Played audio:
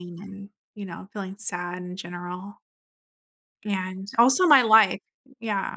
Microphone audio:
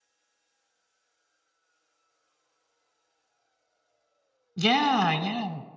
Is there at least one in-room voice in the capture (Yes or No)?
Yes